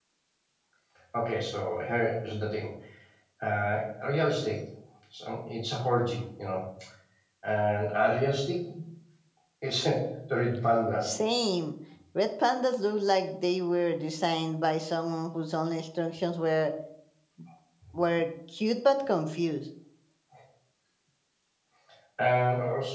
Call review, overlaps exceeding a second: none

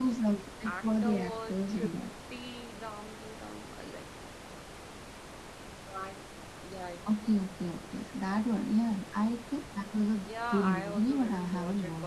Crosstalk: present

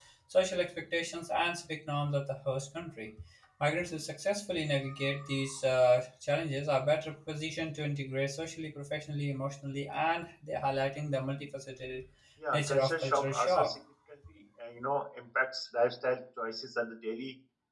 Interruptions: present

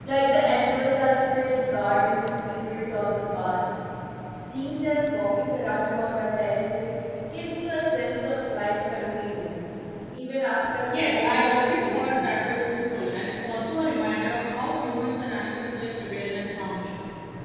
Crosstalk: present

